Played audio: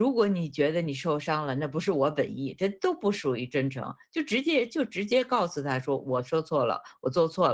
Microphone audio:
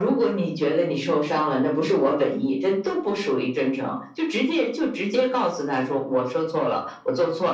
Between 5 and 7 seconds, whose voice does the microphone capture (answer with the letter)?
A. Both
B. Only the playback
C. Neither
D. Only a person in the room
B